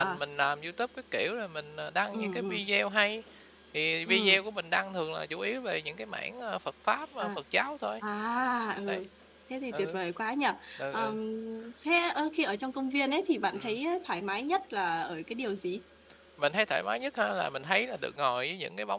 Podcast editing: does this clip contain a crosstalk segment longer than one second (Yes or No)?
No